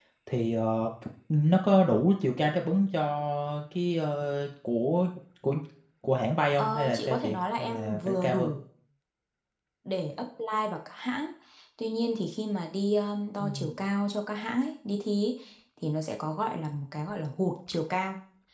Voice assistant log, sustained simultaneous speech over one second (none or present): present